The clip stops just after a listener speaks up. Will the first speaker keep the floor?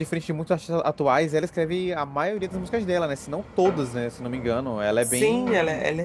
No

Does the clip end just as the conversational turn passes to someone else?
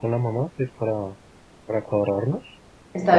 No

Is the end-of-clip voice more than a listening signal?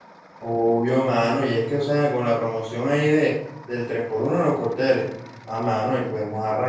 No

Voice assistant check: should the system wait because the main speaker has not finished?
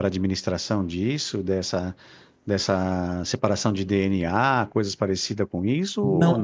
No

